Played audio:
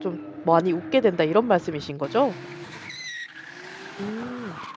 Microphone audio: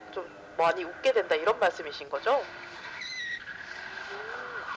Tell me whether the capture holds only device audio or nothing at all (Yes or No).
Yes